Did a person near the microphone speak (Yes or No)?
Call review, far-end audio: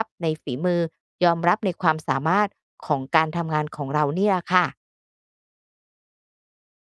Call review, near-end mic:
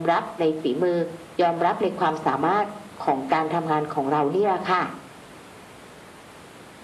No